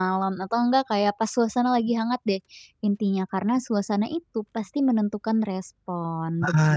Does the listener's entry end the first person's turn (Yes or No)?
Yes